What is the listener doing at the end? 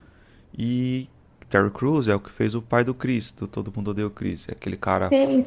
taking over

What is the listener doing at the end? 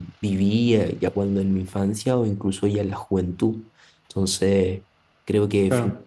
listening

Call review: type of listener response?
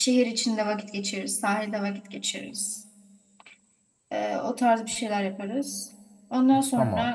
listening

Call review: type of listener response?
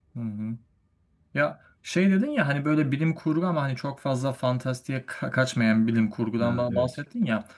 listening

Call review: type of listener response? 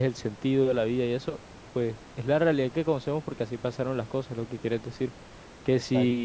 listening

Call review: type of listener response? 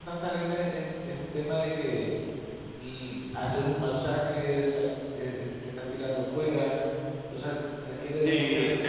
taking over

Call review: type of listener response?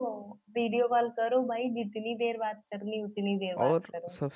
taking over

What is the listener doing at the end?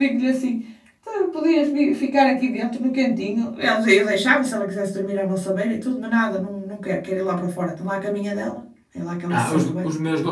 taking over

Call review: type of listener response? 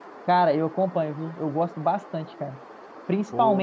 listening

